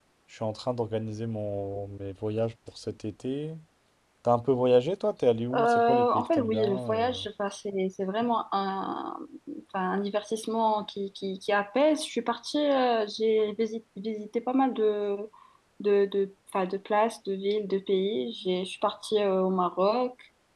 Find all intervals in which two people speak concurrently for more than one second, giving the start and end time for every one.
5.5-7.2

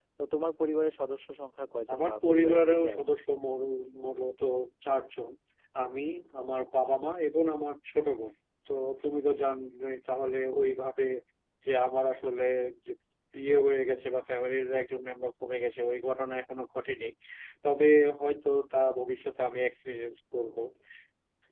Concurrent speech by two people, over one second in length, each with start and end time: 1.9-3.1

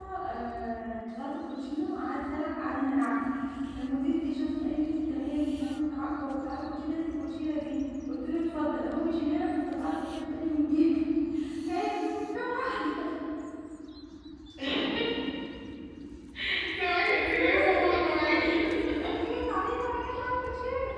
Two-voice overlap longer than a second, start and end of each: 17.2-18.6

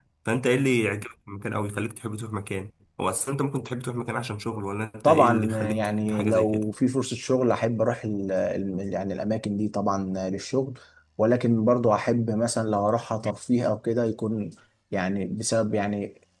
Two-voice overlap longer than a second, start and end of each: 5.0-6.6

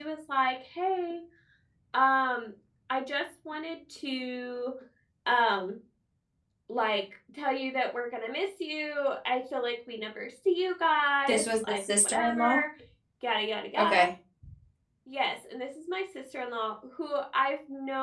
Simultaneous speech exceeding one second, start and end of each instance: 11.3-12.6

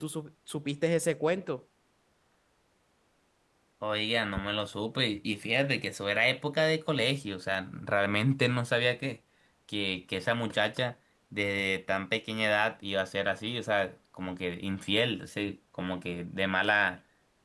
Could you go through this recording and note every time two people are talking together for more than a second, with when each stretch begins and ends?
none

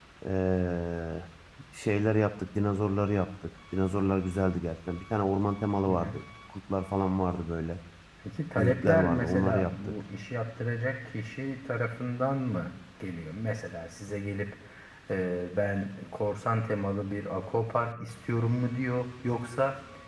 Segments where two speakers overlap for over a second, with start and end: 8.6-9.9

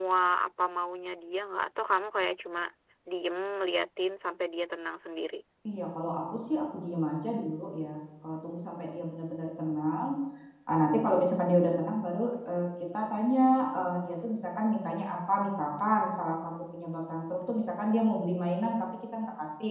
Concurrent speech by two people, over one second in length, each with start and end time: none

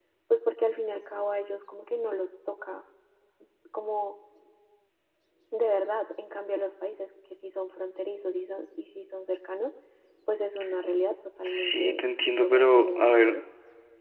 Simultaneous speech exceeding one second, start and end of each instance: 11.4-13.3

